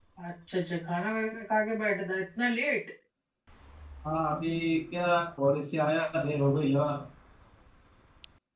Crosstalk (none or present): none